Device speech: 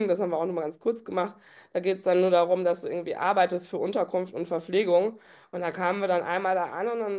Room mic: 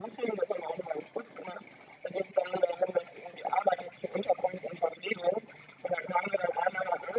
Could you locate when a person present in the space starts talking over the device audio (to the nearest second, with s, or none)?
none